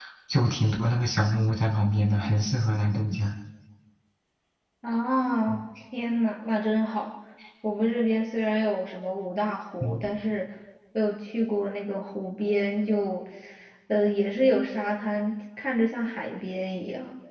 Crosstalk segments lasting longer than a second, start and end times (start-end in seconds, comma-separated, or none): none